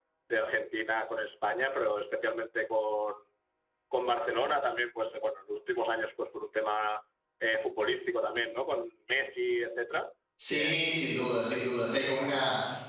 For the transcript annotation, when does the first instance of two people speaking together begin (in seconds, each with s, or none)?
10.4 s